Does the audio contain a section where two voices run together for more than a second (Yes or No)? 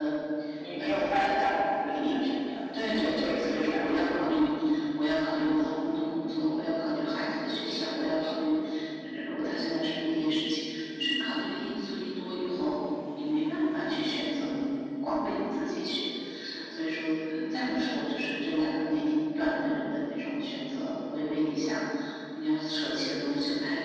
Yes